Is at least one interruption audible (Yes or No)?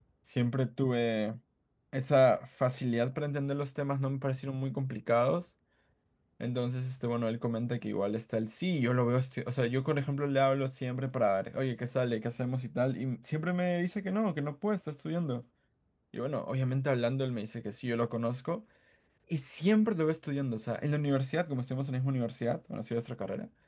No